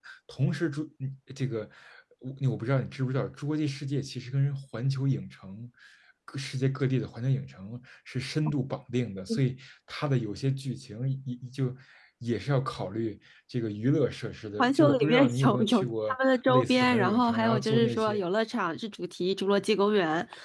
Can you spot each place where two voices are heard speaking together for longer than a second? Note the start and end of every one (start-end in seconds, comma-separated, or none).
14.6-18.2